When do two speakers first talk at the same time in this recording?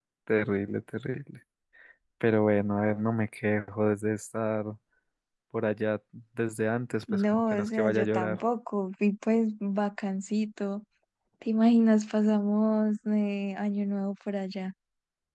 7.1 s

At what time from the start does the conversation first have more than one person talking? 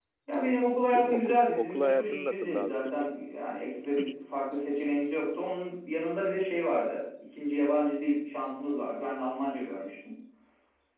0.8 s

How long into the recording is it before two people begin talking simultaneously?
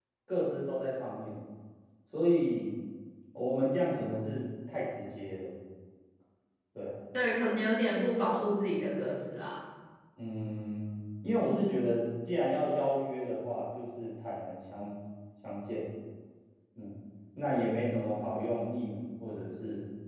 none

